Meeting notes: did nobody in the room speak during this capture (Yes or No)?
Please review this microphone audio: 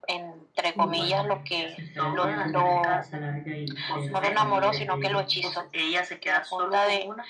No